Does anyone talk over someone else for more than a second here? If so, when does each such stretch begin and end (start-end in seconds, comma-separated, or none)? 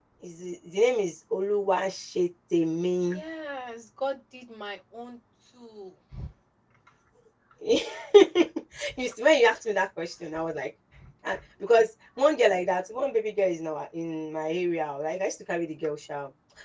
none